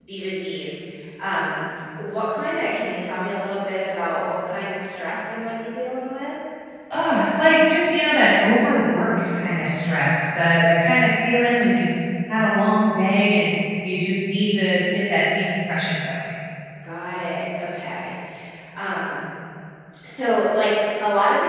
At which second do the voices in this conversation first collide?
none

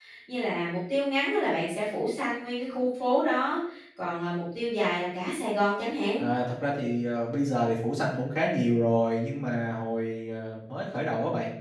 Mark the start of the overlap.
none

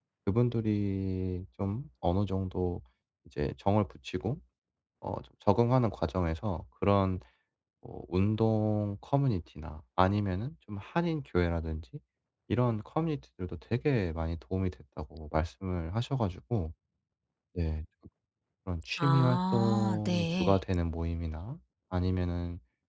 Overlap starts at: 19.0 s

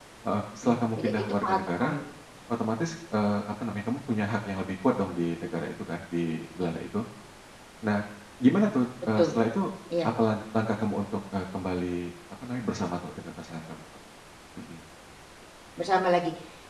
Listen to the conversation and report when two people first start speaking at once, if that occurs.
0.6 s

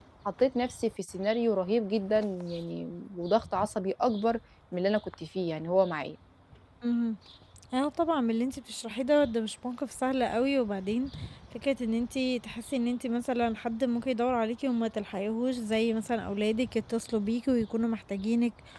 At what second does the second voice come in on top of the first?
none

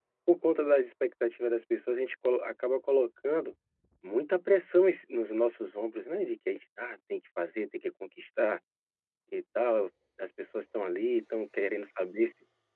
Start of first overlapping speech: none

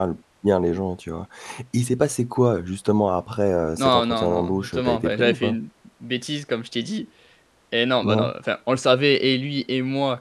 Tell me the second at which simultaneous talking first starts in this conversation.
3.8 s

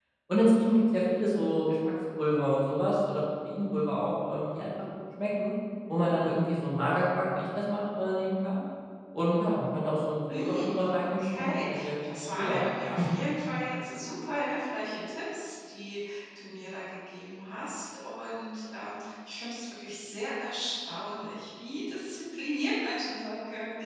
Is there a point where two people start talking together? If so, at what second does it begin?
10.2 s

